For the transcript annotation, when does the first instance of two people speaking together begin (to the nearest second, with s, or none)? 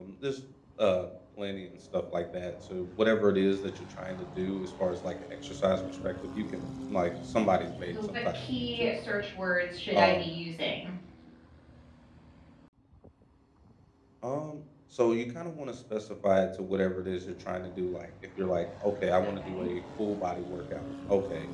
8 s